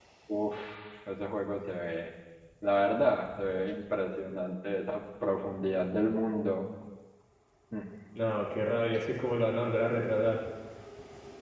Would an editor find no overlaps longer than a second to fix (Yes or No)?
Yes